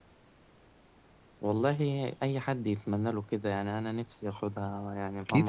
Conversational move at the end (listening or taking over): taking over